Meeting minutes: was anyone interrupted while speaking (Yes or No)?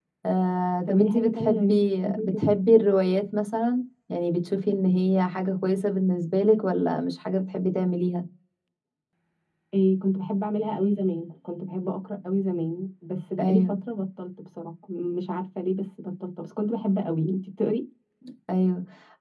Yes